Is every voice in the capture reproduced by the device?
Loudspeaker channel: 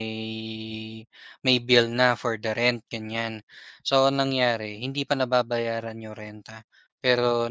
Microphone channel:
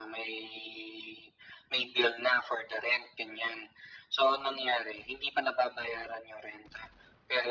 Yes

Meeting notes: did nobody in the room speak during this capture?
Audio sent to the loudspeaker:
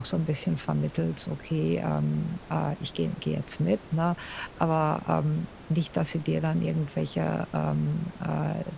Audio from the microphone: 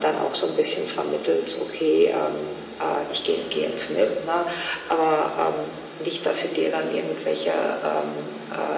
Yes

